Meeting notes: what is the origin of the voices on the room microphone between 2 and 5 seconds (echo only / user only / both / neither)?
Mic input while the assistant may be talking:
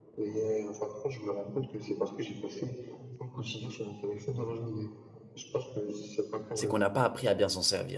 echo only